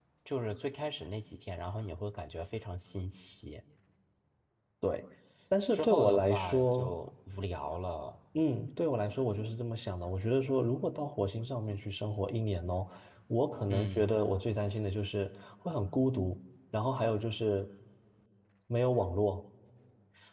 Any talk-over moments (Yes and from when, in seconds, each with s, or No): Yes, from 5.7 s